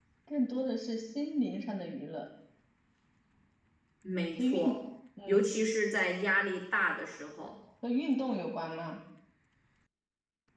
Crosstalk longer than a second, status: none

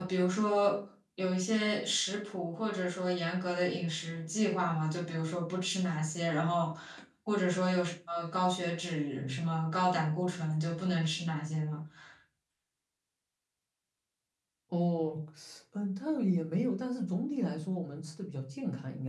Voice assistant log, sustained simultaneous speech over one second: none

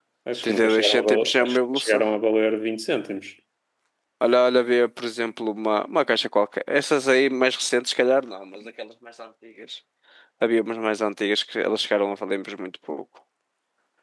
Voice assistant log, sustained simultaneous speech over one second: present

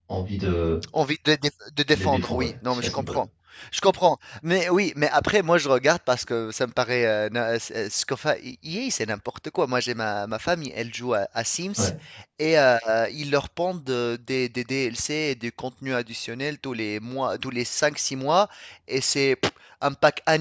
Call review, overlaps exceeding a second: present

